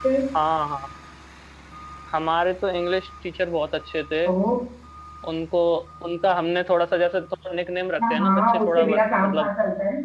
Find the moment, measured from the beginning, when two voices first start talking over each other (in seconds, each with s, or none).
8.0 s